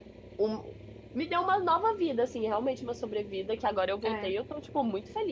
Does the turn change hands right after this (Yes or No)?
No